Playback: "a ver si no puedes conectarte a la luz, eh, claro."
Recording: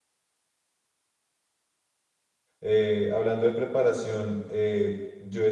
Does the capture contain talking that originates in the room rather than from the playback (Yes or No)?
Yes